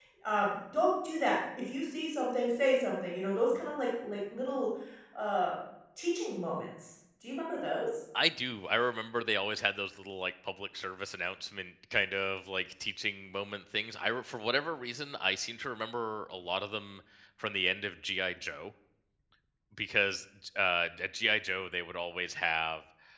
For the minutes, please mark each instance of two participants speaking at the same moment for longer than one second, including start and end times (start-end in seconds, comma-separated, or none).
none